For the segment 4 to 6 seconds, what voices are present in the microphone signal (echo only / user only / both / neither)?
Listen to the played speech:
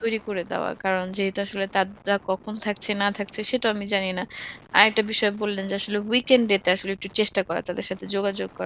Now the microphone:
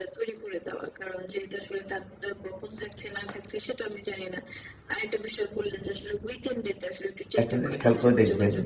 echo only